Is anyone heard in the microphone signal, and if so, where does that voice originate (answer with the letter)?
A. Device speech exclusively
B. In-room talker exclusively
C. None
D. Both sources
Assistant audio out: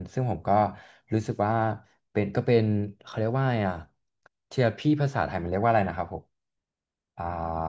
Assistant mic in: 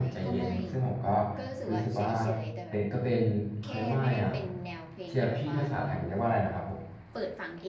D